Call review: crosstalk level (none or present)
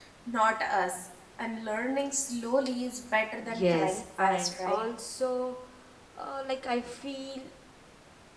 present